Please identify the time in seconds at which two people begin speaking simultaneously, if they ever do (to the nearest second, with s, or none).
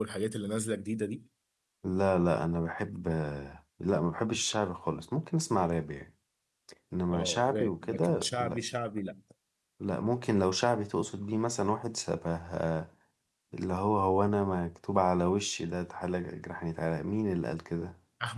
7 s